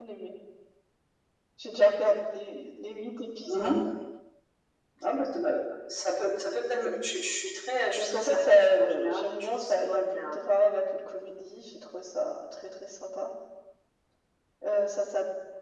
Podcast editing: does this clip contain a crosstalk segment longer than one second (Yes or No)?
Yes